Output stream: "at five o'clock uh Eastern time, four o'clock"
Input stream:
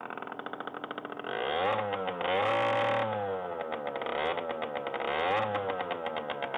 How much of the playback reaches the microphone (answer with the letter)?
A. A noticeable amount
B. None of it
B